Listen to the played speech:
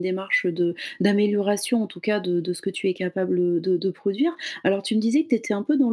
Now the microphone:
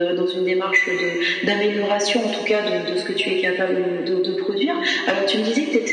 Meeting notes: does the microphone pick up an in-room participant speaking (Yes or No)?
No